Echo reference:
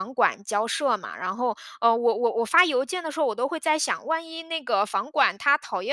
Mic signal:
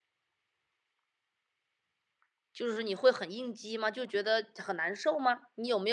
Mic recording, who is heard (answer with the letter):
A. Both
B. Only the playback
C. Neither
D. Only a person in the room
D